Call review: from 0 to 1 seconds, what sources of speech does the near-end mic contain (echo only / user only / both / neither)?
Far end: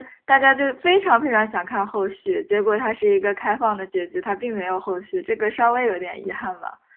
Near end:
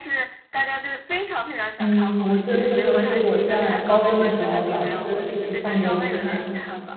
echo only